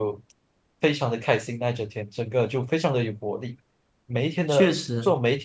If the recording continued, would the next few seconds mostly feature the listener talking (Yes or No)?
No